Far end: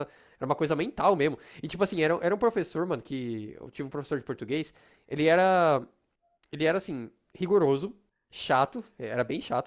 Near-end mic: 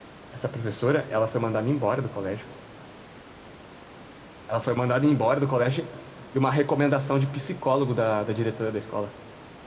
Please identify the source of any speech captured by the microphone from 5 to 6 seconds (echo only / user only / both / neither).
user only